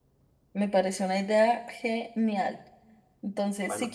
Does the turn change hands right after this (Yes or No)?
No